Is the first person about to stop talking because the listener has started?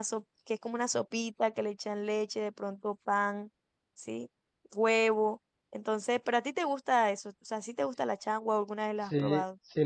Yes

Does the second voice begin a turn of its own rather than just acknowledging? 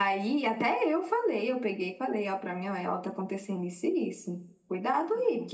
No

